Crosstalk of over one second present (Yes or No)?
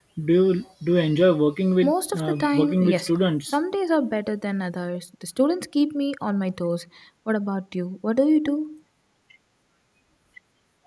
Yes